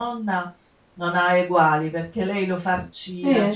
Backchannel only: Yes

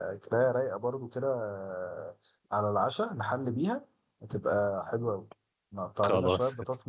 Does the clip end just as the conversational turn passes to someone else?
No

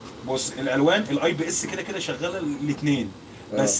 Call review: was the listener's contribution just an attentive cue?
Yes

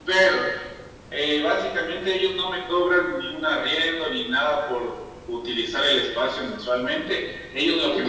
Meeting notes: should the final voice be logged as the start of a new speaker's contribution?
No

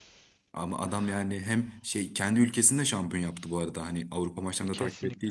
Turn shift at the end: Yes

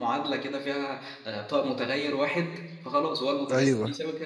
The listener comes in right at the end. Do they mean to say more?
No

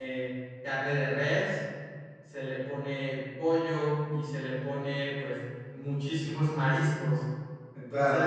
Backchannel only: No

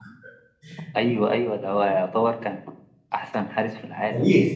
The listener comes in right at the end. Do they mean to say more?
Yes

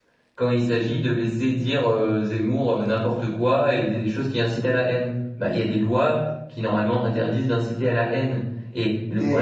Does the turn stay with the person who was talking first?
No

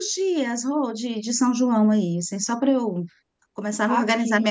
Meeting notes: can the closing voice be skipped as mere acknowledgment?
Yes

